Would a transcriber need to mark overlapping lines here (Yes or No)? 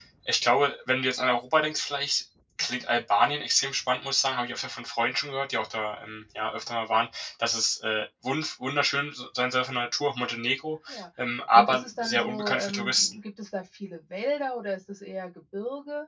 Yes